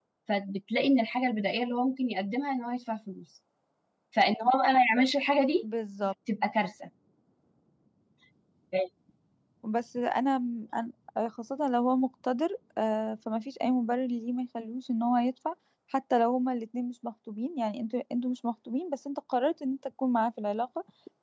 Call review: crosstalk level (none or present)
none